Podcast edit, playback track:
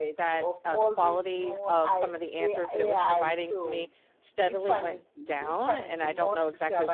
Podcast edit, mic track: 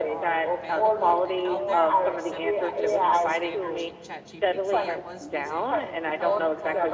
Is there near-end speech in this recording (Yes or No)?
Yes